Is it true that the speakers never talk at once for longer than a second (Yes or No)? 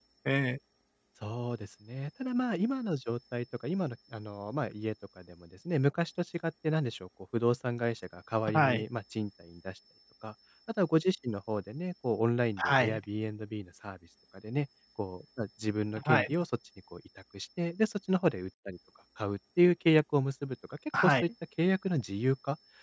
Yes